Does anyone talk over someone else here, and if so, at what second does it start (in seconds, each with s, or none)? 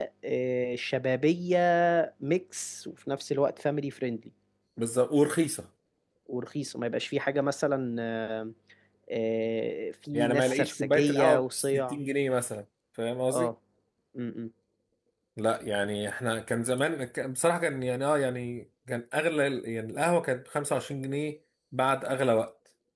10.1 s